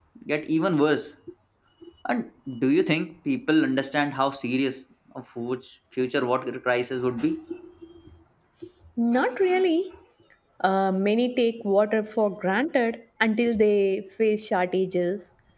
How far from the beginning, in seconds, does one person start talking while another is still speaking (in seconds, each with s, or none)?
none